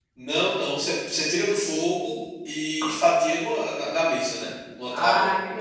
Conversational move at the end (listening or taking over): taking over